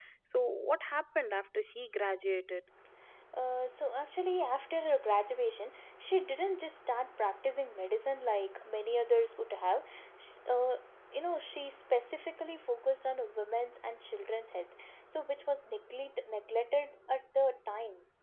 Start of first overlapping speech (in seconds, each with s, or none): none